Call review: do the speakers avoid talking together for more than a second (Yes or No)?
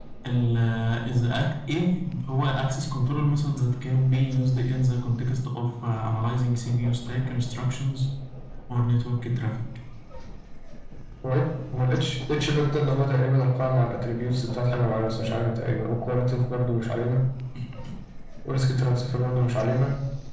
Yes